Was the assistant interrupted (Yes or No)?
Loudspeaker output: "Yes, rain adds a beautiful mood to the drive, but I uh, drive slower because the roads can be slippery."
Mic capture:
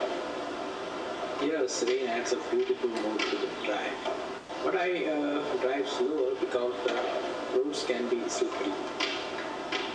No